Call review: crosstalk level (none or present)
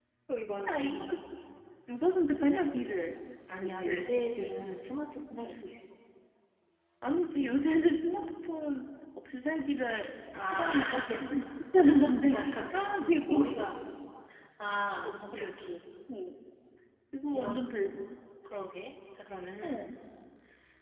present